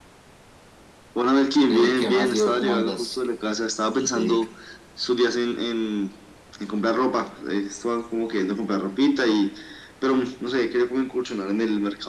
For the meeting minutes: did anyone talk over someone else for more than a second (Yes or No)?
Yes